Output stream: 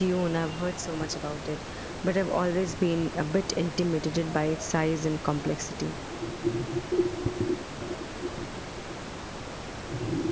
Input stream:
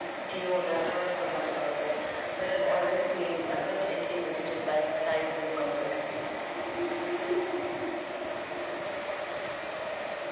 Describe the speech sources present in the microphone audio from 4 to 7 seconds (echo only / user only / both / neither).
echo only